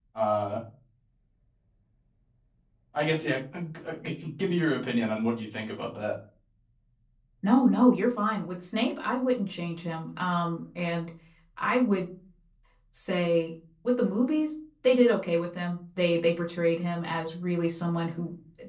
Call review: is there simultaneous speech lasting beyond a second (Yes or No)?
No